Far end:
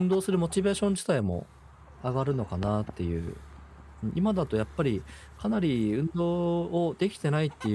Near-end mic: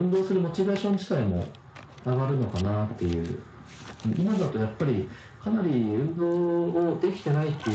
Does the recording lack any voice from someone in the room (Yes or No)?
Yes